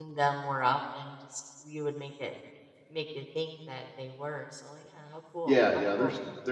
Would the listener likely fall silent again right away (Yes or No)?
No